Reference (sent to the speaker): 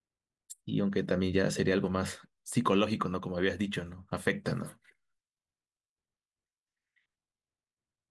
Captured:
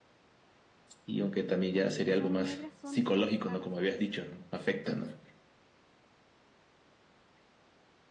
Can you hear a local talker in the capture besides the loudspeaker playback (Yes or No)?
Yes